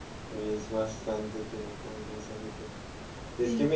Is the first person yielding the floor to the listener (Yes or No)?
No